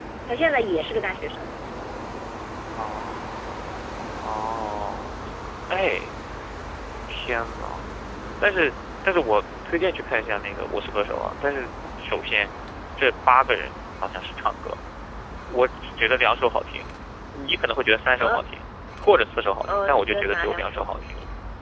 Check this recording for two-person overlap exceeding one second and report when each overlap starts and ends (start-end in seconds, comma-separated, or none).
19.7-21.0